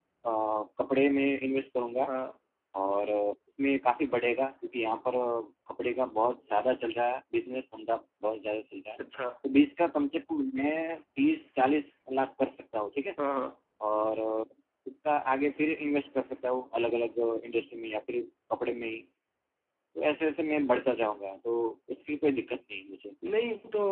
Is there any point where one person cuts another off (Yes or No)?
No